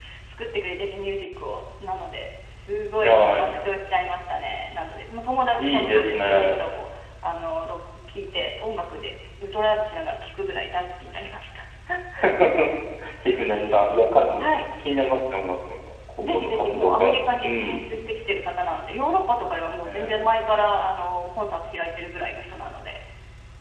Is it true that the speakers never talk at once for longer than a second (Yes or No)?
No